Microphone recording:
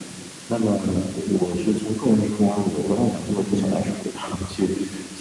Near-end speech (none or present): none